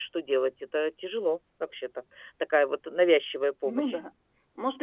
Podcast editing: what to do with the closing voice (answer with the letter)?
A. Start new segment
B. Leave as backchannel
A